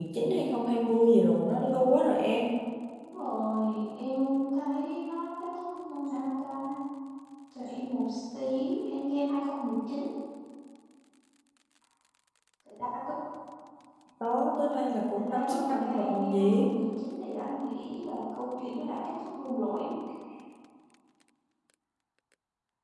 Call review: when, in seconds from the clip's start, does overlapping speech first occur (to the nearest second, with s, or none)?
15 s